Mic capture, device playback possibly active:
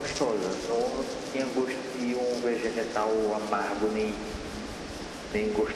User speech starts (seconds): none

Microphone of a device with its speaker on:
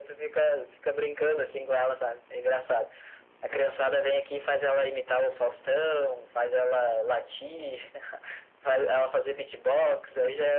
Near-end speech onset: none

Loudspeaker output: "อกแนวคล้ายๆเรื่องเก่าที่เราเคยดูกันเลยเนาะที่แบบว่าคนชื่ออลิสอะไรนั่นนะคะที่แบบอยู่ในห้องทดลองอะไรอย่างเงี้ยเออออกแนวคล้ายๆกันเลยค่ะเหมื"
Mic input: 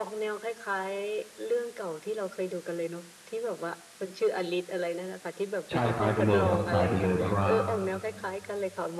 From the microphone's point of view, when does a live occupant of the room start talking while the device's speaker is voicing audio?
6 s

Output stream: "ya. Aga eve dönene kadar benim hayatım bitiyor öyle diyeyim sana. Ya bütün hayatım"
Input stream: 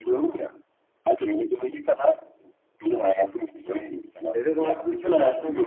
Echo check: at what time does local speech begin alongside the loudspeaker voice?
4 s

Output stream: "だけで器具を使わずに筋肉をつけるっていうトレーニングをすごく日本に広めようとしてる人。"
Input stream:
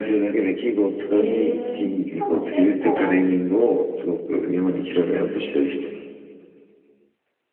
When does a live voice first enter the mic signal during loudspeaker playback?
1 s

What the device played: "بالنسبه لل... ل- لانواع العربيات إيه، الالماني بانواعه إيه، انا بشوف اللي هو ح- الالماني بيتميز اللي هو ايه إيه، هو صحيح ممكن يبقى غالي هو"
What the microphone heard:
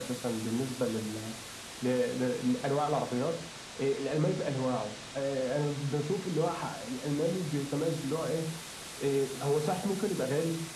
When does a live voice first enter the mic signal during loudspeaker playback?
none

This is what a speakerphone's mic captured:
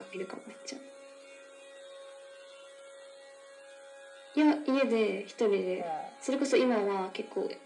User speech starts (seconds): 6 s

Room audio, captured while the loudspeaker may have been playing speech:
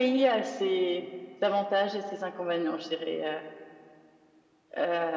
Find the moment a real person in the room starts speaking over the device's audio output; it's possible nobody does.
none

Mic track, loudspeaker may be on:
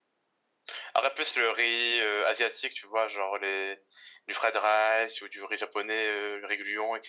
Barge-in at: none

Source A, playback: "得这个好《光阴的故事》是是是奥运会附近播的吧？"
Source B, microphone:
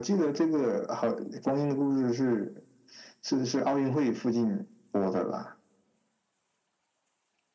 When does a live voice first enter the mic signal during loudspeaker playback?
none

